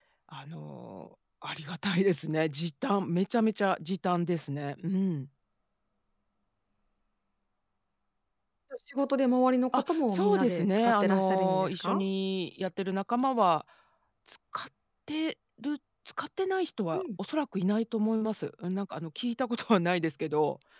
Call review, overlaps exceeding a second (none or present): present